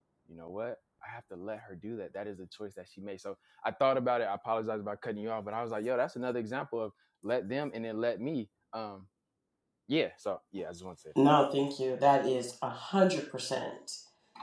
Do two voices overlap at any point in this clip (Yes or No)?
No